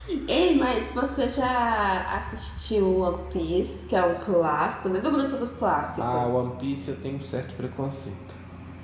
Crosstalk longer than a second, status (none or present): none